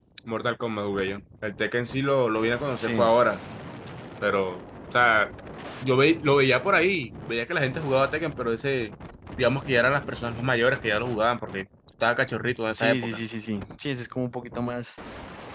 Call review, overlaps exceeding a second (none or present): none